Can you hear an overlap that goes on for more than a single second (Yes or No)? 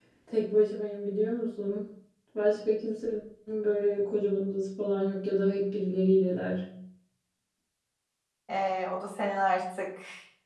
No